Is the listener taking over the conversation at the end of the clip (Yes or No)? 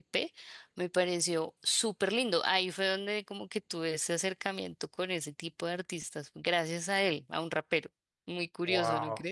Yes